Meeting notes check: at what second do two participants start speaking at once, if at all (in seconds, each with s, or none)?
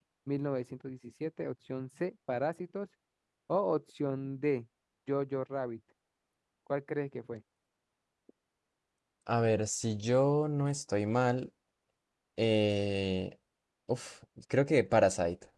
none